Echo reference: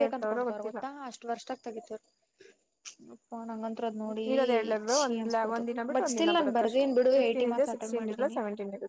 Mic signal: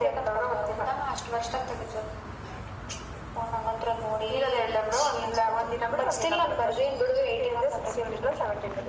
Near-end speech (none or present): none